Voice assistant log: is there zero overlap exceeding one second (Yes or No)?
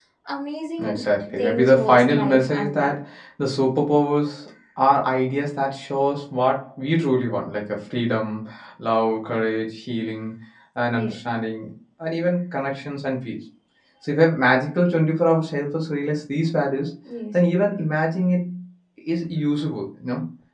No